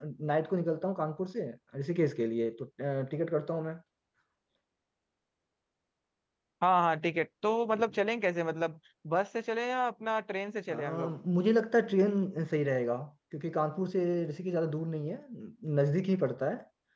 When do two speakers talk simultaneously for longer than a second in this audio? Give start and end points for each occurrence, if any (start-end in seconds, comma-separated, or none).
none